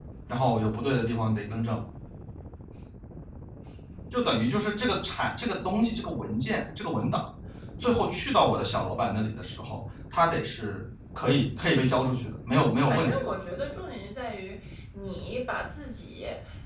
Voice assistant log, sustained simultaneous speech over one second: none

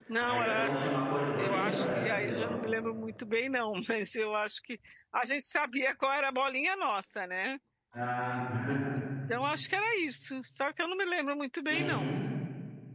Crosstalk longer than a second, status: present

